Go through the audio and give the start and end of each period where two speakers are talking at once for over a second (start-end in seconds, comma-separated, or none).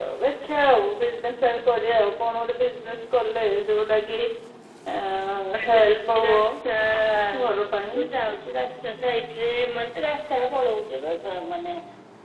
none